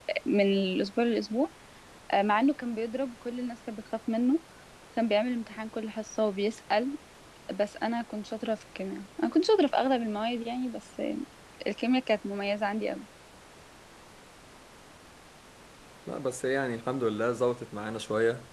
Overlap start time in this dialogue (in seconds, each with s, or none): none